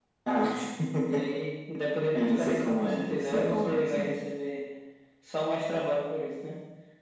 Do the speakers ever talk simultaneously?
Yes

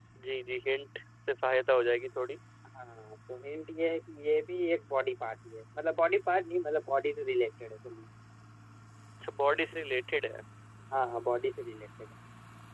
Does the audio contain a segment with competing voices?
No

